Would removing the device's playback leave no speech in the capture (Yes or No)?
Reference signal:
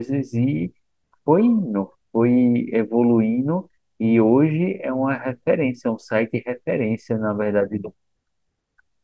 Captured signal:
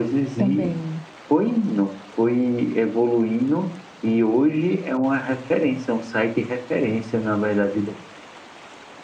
No